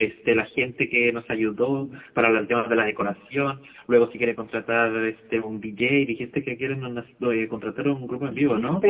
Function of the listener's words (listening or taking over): taking over